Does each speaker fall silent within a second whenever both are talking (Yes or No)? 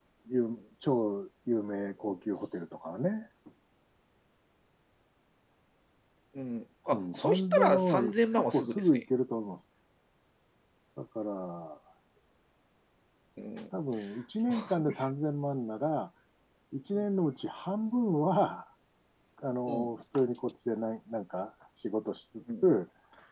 No